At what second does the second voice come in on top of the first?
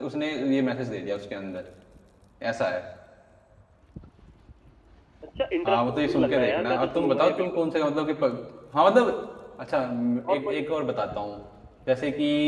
5.6 s

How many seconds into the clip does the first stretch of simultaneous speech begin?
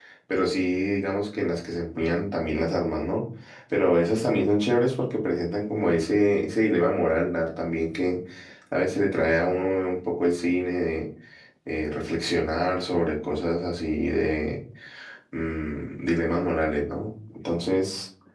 none

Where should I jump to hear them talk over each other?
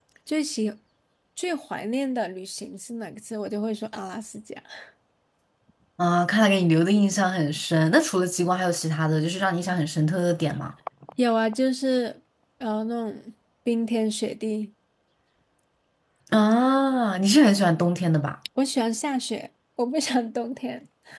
none

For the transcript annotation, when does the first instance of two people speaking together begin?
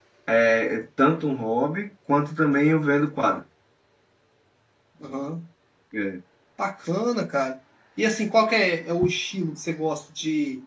none

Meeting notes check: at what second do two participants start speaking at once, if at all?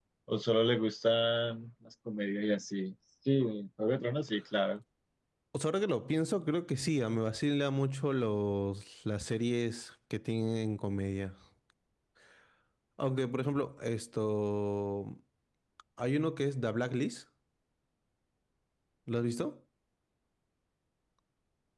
none

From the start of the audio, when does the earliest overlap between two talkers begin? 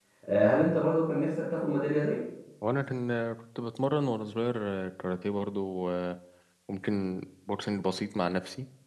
none

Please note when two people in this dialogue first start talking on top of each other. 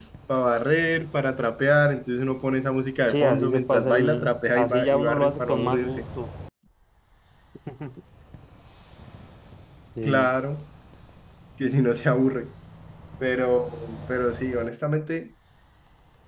3.1 s

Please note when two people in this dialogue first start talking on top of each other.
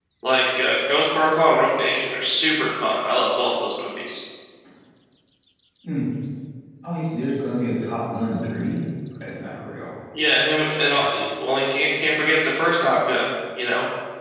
none

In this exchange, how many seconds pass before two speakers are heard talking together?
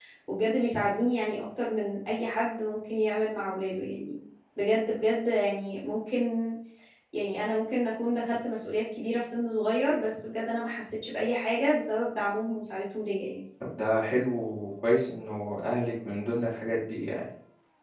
none

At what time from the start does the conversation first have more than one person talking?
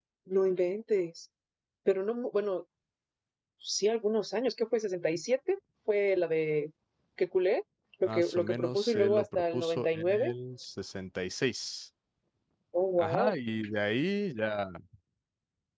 8.0 s

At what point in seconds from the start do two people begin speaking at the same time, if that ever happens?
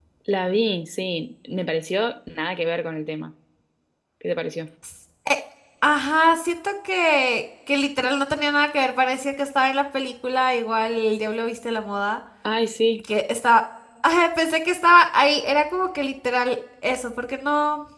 none

